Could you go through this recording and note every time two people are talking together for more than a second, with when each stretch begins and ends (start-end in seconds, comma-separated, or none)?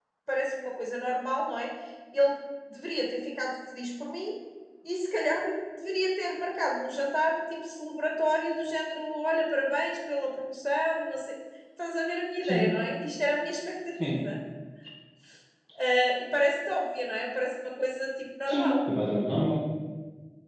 none